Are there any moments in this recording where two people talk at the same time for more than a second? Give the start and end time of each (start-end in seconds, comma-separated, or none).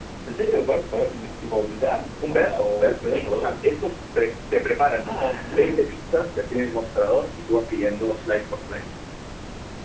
2.3-3.5